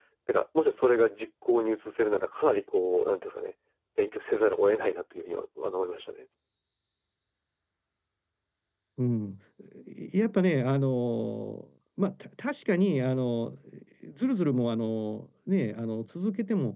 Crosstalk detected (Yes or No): No